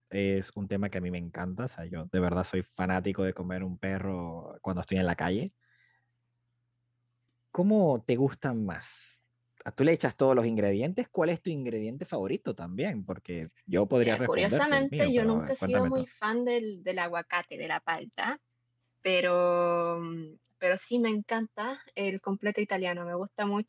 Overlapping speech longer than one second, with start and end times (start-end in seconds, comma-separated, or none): 14.0-16.0